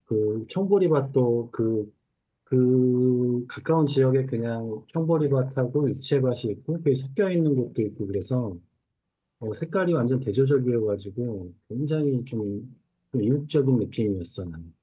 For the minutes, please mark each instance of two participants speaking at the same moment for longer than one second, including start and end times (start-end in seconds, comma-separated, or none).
none